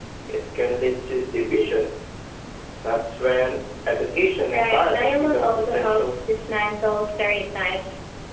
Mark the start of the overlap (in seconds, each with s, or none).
4.5 s